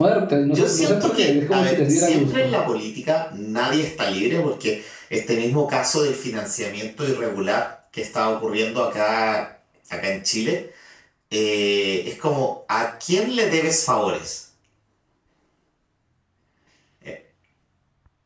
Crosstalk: present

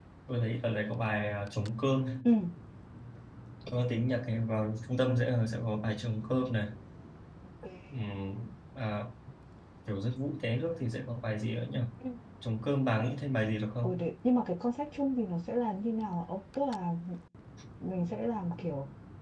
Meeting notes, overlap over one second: none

